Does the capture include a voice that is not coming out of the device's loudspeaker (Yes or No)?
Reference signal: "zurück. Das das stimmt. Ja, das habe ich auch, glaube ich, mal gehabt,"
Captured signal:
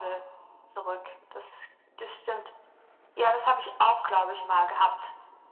No